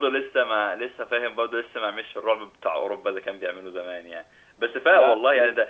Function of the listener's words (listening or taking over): listening